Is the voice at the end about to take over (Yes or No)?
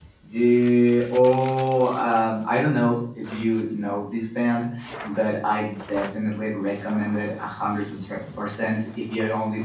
No